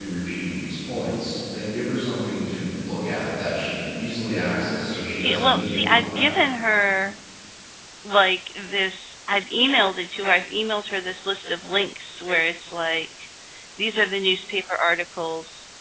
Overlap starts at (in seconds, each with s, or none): 4.7 s